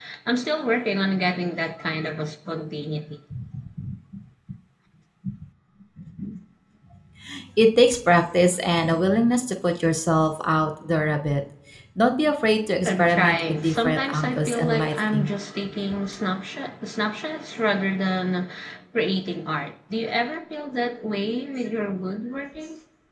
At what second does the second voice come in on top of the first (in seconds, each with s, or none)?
12.8 s